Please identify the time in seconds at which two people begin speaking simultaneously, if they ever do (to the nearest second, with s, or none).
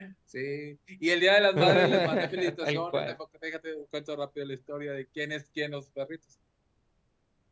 2 s